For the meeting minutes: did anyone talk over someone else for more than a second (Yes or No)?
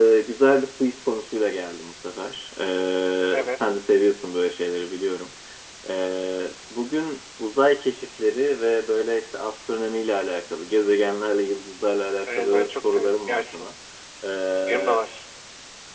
Yes